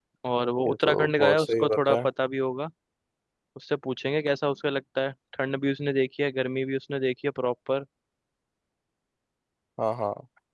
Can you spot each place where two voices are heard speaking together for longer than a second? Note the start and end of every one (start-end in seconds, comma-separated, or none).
0.7-2.0